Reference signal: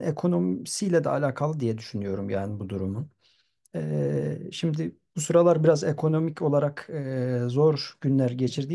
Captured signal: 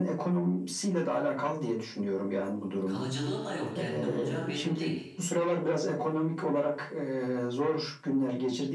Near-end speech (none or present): present